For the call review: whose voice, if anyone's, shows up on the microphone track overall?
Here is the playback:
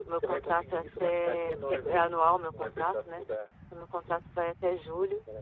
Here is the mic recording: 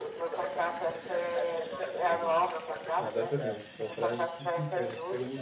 both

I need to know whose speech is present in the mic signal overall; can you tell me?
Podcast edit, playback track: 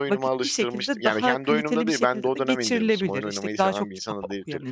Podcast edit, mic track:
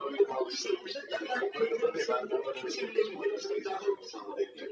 echo only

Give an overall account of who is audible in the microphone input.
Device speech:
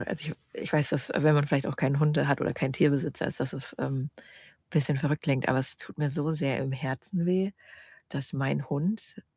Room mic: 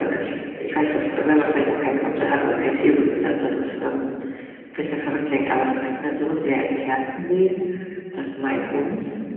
echo only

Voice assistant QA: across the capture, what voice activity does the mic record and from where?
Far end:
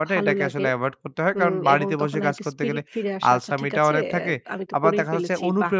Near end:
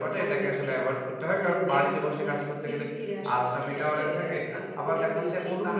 echo only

